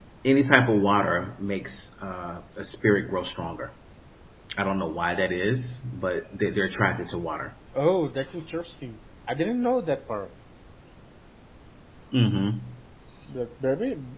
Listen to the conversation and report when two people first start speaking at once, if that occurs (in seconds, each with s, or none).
none